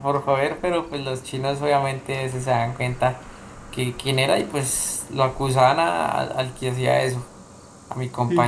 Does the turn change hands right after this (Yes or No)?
No